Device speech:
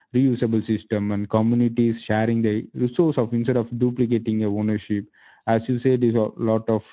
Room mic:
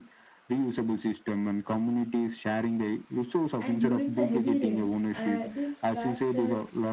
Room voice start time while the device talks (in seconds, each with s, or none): 3.6 s